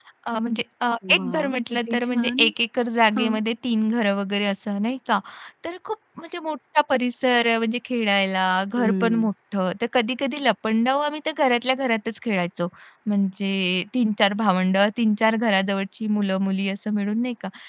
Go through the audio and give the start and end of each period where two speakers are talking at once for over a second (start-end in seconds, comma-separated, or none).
1.1-2.5